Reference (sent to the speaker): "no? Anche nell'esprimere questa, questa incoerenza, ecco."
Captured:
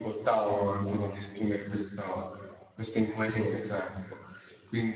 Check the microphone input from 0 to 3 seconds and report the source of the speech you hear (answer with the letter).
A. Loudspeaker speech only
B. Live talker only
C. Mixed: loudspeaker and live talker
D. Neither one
A